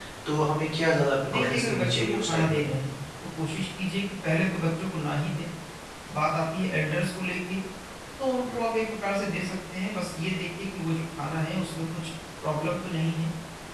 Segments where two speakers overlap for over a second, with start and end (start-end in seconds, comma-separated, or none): 1.3-2.6